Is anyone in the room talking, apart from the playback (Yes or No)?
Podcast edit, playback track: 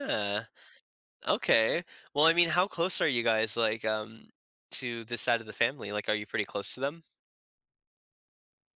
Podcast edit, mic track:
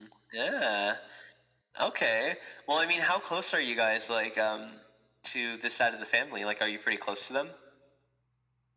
No